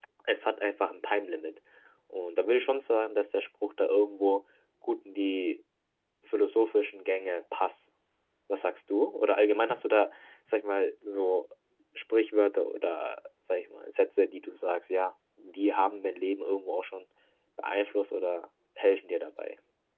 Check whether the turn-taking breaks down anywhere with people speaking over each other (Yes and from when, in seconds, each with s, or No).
No